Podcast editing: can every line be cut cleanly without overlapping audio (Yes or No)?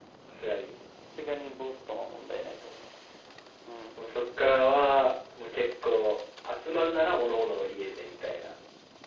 Yes